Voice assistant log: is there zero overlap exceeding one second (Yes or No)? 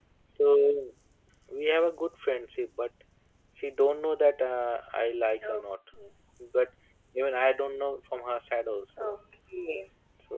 Yes